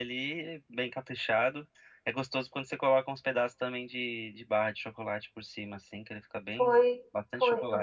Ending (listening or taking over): taking over